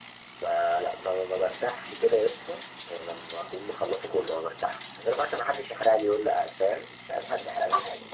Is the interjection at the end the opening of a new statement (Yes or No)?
Yes